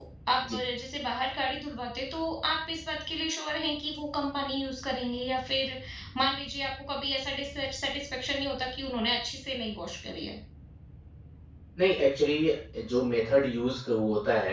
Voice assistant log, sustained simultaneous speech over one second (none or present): none